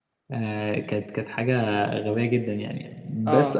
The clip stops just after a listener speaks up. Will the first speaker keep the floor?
Yes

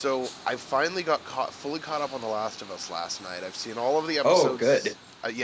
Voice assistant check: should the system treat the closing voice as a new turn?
No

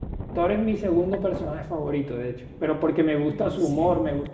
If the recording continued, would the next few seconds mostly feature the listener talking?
No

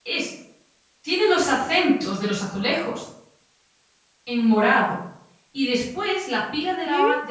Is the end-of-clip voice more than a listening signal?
No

